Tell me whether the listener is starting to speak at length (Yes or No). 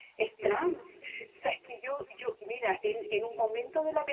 No